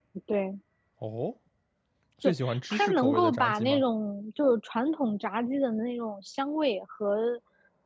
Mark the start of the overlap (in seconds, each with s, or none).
2.2 s